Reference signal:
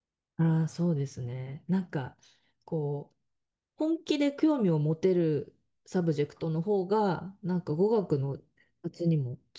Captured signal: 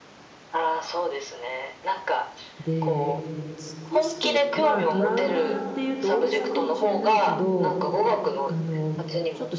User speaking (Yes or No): Yes